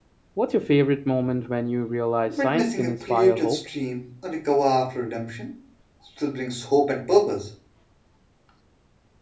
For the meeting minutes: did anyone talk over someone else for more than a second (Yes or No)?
Yes